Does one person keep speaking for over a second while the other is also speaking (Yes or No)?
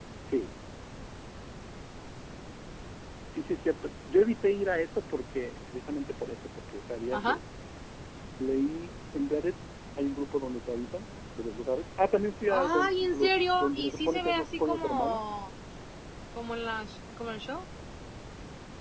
Yes